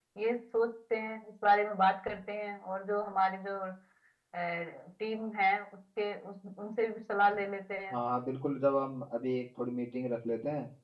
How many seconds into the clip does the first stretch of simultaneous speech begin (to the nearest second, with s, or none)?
none